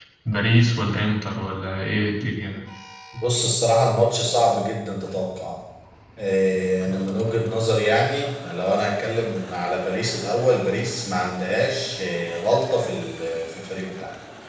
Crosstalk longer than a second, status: none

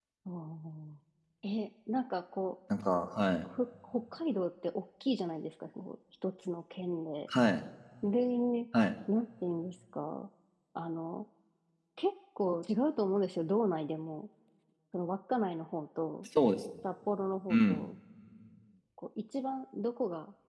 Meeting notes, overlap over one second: none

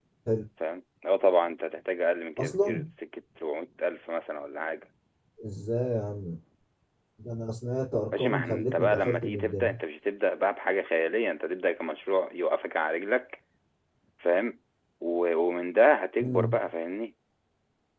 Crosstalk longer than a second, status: present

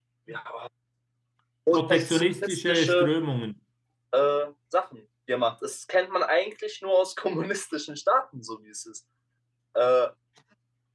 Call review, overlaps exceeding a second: present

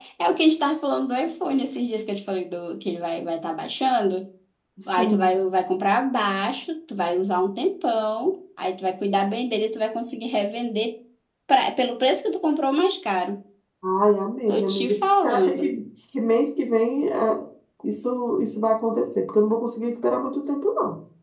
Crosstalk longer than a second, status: present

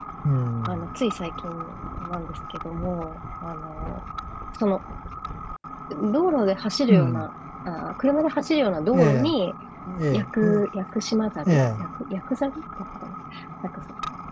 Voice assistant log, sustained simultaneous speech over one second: none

